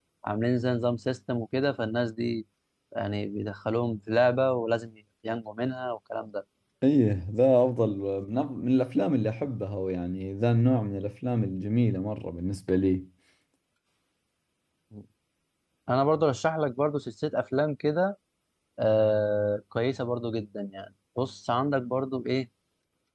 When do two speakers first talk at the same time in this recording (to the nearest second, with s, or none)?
none